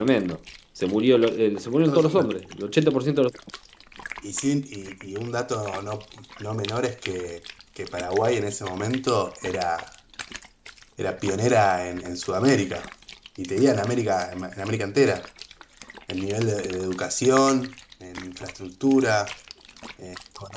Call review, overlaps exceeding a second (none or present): none